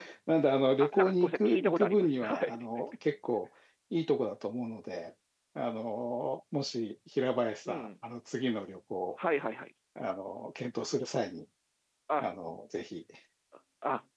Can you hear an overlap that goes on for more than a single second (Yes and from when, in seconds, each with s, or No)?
Yes, from 0.8 s